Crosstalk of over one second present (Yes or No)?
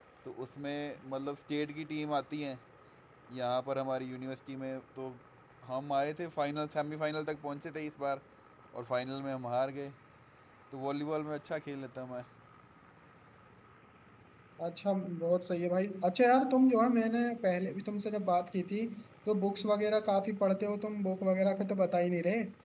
No